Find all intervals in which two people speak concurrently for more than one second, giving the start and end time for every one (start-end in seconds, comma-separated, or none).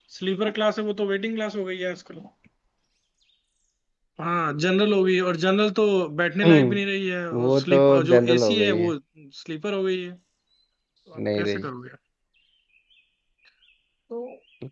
7.4-8.9